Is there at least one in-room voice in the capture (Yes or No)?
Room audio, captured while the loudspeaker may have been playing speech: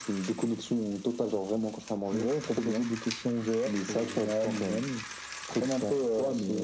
No